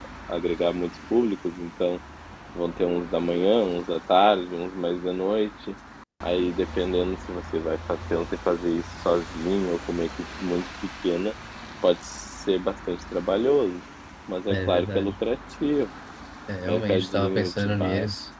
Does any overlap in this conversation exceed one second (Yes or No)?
Yes